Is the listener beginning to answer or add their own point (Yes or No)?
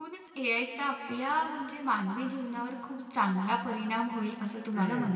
Yes